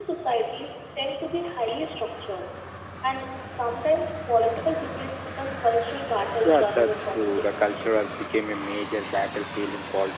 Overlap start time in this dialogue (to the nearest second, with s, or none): 6 s